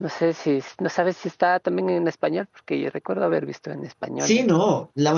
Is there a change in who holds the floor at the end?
Yes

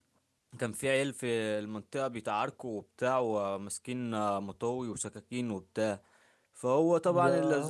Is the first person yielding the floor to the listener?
No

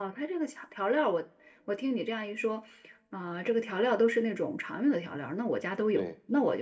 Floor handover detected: Yes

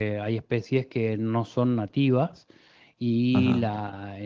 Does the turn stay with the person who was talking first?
Yes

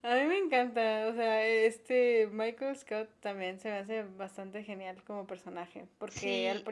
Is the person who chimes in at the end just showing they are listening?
Yes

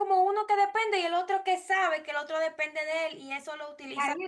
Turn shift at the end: Yes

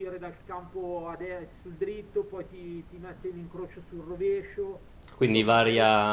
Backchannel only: No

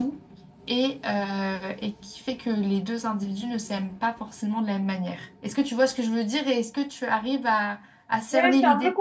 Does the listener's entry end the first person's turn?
Yes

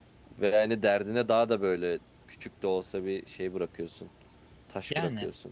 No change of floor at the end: No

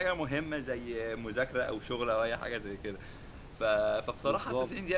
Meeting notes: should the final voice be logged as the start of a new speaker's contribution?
No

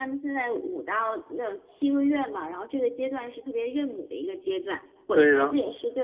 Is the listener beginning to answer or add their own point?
No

